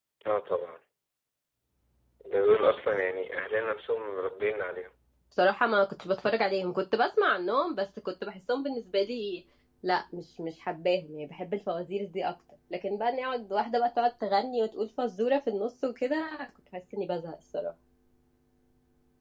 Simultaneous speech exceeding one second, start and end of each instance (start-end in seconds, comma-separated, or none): none